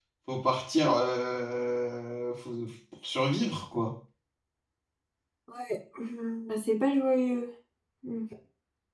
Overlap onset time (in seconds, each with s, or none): none